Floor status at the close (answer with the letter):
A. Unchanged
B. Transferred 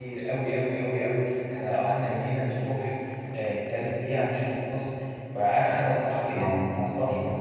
A